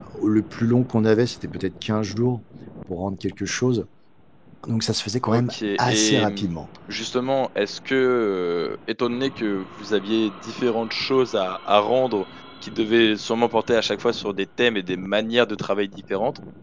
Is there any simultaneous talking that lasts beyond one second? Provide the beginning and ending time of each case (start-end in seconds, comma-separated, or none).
5.2-6.5